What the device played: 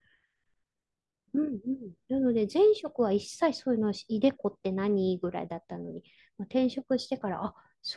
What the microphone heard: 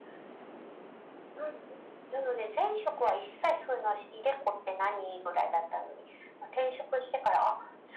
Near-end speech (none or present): none